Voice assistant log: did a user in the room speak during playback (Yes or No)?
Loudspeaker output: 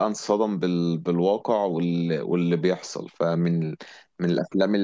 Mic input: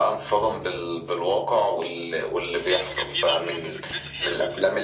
Yes